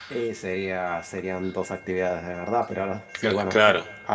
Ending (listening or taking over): listening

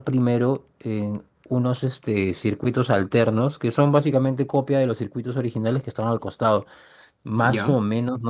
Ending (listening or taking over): listening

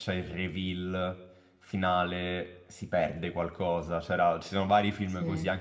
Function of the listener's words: listening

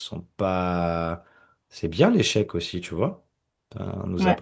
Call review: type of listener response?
listening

